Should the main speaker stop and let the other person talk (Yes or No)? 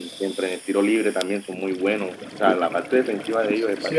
Yes